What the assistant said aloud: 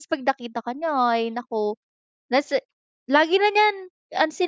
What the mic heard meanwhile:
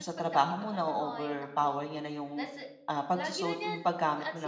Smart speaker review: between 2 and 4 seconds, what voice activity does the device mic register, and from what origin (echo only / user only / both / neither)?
both